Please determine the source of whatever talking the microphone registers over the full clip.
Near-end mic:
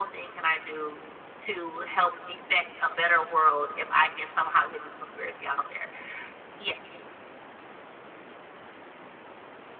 echo only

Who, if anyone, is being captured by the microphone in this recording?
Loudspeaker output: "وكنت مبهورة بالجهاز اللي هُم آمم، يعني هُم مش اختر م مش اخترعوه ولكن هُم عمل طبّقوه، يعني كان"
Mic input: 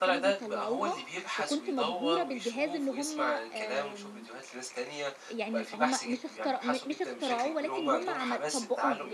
both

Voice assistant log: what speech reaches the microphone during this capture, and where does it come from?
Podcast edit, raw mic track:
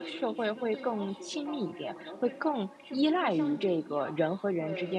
both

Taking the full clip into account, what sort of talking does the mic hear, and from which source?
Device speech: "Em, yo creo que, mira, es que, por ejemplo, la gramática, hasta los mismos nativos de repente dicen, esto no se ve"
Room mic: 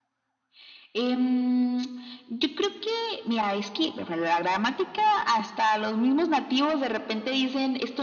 echo only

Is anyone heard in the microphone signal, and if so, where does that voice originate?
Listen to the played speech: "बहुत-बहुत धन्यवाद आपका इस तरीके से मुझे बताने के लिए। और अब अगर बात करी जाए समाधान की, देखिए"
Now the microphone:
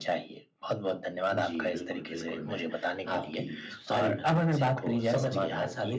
both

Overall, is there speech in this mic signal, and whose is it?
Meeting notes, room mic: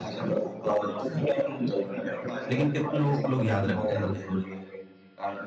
both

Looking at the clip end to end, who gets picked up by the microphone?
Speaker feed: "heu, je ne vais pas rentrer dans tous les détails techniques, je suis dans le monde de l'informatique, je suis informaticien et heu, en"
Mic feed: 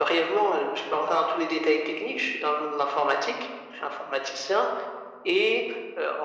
echo only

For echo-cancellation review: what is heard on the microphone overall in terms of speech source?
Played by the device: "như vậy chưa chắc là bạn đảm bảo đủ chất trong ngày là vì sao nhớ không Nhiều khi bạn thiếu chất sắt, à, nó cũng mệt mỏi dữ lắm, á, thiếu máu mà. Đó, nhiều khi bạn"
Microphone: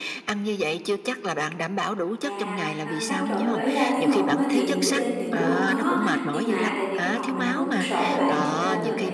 both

